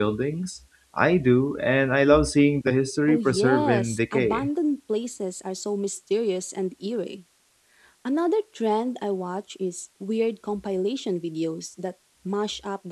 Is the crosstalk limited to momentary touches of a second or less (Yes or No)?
No